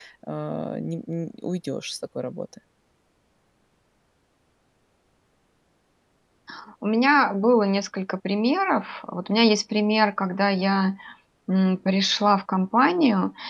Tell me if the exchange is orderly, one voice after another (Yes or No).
Yes